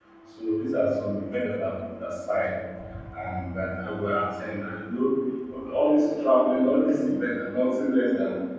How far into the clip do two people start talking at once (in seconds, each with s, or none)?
none